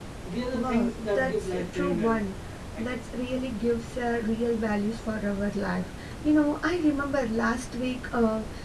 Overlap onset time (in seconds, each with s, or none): 0.5 s